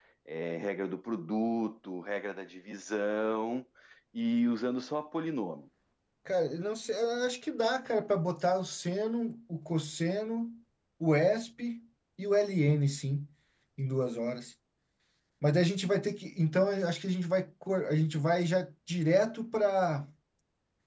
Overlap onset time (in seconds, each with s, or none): none